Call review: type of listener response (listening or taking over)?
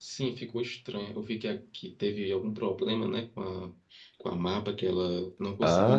taking over